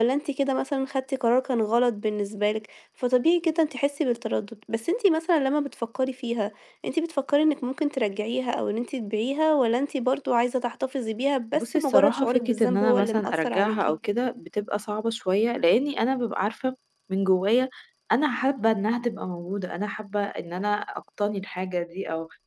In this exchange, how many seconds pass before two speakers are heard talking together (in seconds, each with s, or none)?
11.5 s